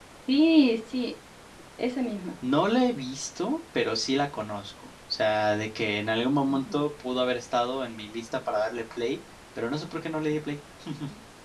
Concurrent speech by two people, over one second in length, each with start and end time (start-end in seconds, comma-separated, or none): none